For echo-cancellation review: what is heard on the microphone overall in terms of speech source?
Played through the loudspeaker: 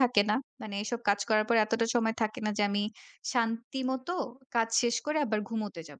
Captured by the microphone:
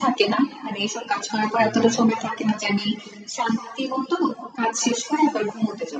both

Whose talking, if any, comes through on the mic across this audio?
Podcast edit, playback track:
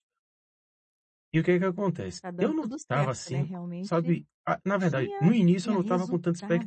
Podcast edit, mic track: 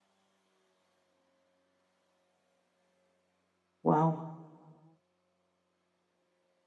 user only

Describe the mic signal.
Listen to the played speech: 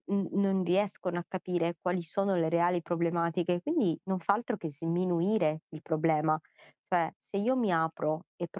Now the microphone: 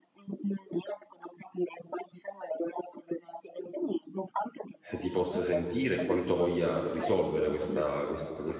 both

